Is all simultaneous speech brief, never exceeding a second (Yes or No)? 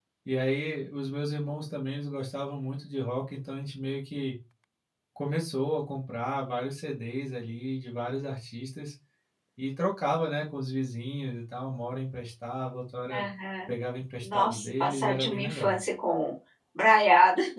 No